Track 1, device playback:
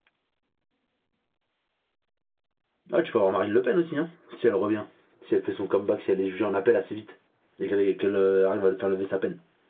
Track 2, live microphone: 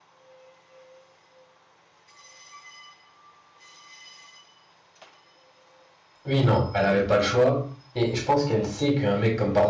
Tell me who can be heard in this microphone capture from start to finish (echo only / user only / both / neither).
user only